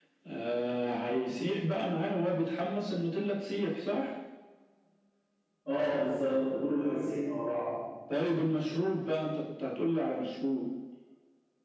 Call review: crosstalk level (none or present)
none